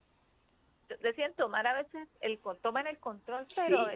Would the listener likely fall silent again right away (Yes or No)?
Yes